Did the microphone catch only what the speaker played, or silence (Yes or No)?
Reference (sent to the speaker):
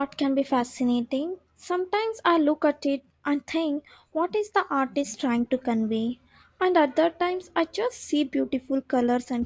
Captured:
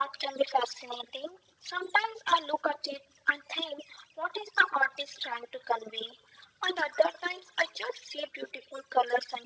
Yes